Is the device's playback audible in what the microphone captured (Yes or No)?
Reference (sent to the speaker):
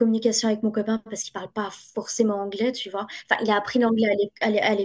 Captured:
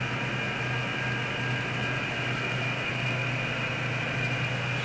No